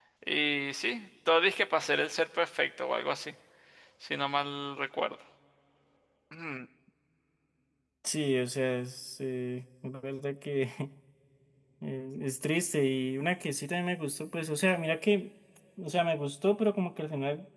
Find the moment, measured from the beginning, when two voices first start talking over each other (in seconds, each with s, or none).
none